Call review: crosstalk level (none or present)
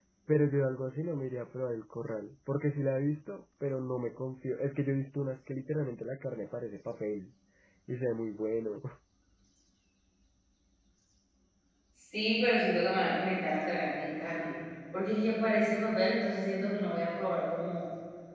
none